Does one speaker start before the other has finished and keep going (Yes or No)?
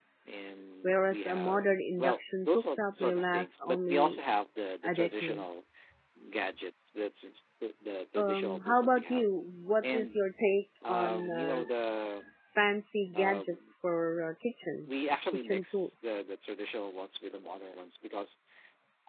Yes